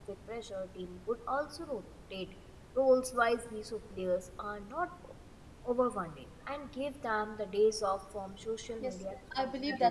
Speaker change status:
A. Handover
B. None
A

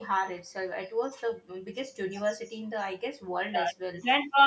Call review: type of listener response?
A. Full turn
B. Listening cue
A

